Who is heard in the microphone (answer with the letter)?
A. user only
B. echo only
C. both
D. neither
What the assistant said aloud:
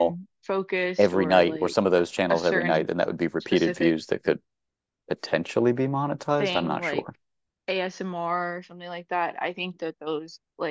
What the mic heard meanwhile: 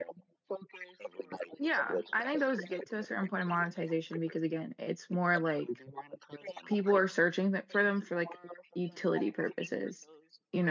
C